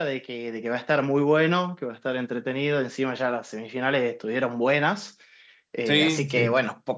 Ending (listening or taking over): listening